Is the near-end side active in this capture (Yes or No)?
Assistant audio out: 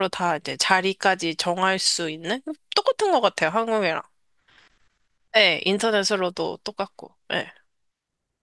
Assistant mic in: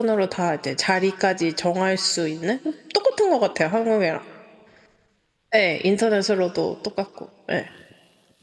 No